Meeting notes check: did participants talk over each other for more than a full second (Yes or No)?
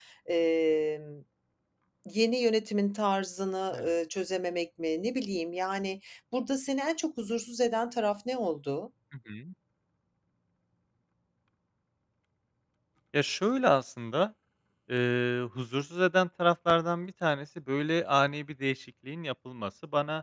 No